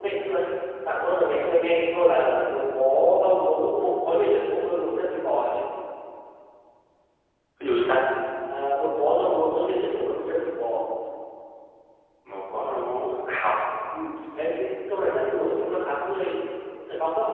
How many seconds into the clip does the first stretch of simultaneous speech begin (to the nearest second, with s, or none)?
none